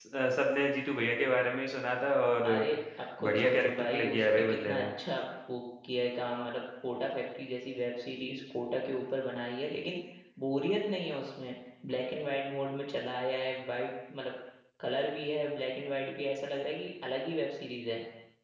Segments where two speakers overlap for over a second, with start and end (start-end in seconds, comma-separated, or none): 3.2-4.8